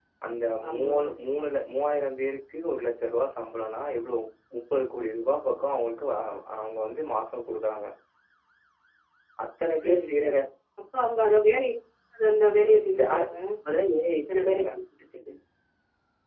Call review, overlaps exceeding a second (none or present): none